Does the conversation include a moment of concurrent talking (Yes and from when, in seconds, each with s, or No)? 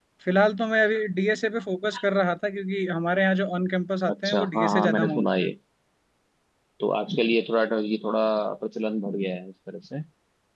Yes, from 4.1 s